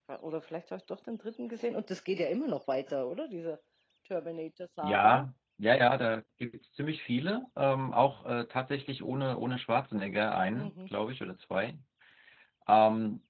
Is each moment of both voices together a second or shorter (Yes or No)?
Yes